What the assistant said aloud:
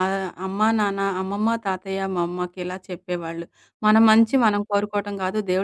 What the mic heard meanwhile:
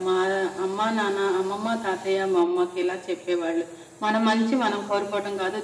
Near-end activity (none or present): none